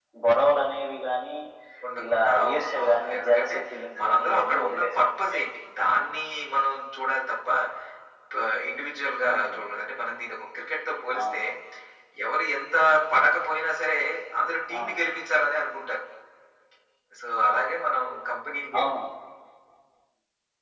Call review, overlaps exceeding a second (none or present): present